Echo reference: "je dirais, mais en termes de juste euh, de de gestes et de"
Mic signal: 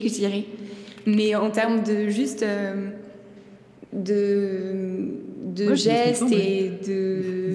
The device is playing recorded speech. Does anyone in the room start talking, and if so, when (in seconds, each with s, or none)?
5.6 s